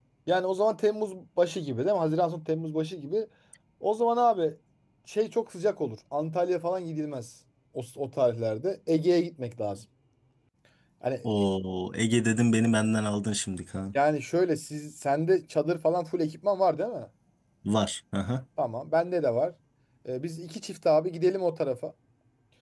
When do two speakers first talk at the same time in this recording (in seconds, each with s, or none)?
none